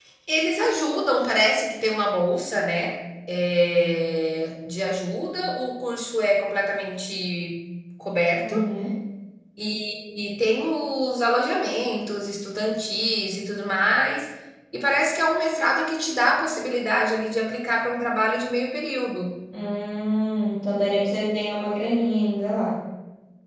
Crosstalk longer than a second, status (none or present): none